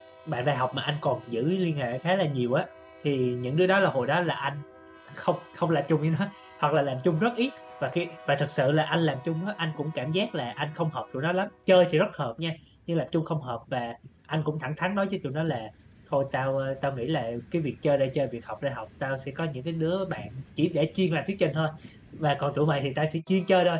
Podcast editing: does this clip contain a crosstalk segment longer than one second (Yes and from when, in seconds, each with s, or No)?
No